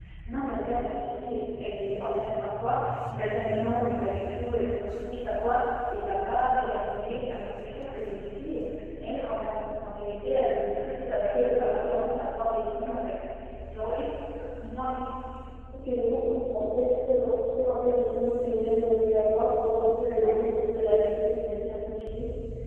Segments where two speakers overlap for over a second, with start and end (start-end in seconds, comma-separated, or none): none